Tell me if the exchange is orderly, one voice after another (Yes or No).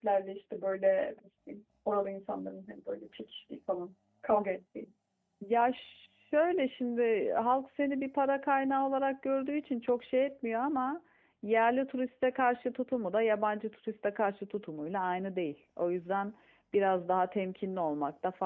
Yes